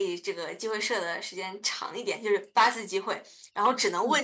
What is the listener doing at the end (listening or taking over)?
listening